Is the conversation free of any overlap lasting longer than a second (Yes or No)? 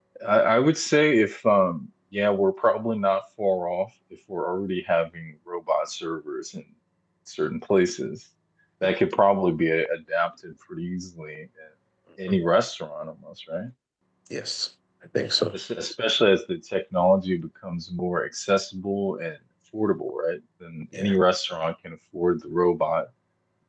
Yes